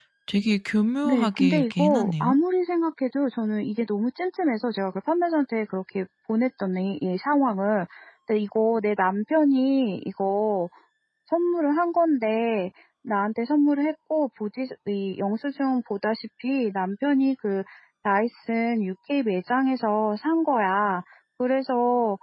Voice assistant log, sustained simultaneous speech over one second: present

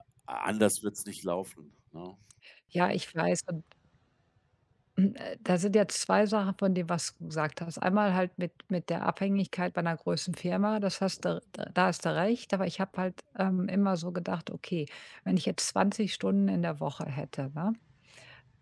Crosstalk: none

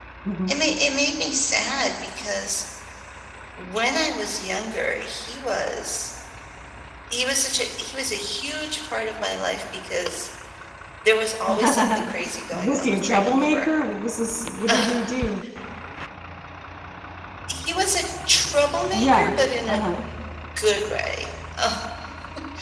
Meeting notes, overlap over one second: present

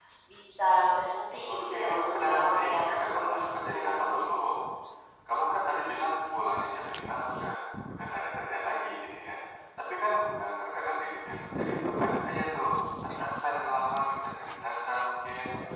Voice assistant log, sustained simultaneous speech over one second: present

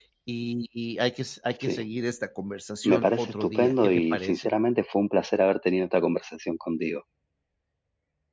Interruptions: present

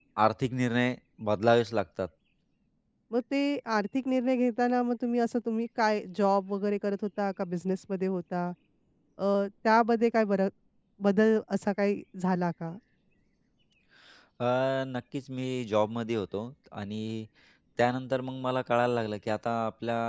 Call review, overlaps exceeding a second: none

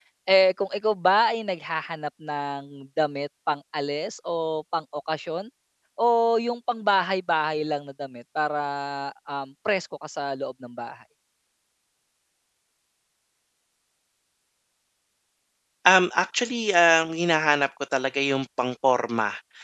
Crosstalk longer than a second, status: none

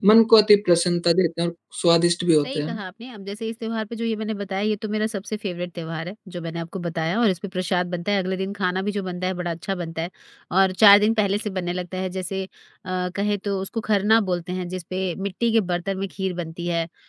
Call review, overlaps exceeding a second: none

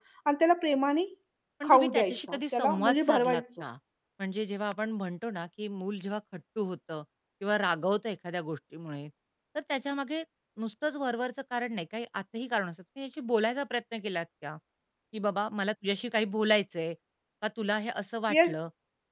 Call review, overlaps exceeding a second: present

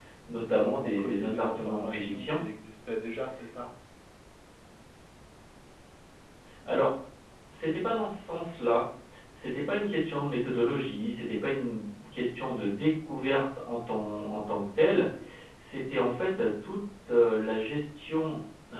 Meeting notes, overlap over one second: present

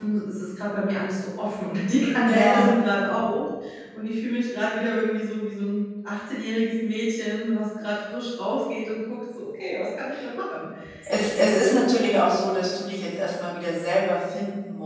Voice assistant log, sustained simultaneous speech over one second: none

